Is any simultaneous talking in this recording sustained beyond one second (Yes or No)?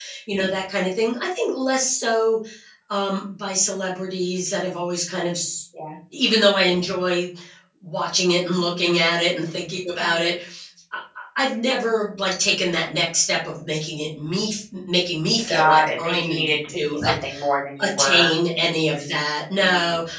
Yes